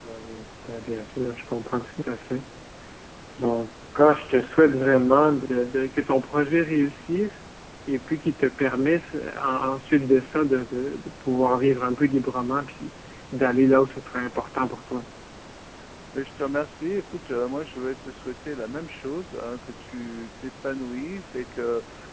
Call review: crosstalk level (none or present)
none